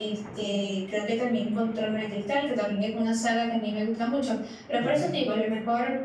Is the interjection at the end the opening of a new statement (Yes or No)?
No